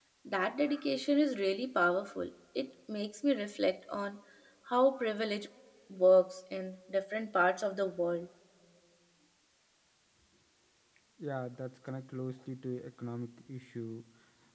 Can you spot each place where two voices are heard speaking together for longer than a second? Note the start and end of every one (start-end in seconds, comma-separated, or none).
none